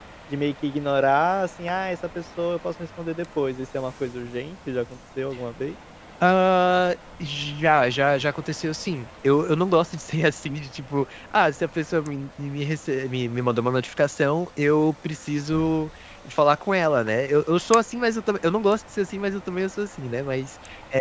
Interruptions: none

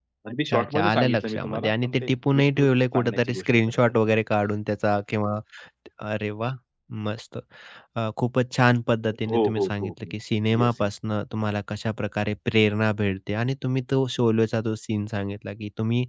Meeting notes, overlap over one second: present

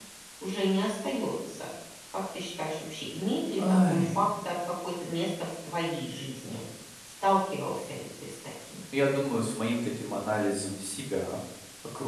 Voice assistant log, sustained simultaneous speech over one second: none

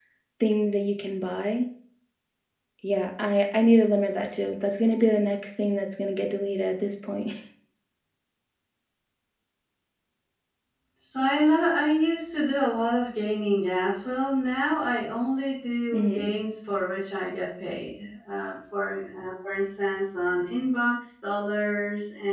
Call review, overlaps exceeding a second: none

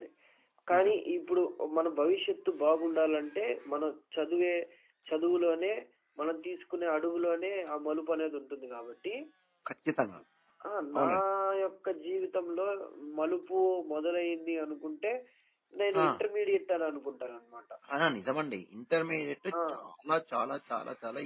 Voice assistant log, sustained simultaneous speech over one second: none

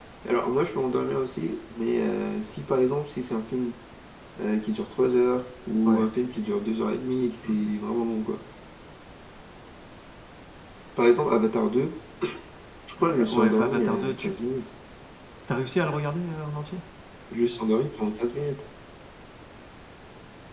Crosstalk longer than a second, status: present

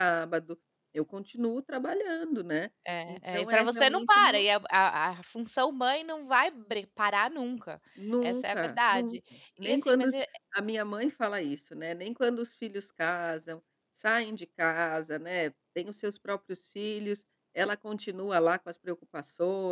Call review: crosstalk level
present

